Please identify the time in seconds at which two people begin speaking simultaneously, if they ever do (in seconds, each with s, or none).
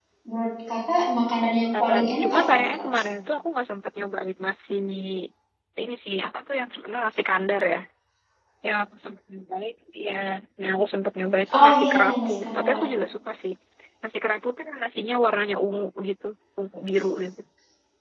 1.7 s